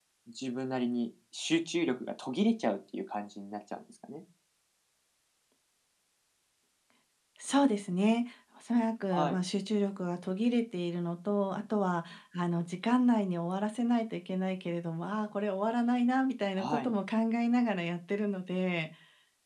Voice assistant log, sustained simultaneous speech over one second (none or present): none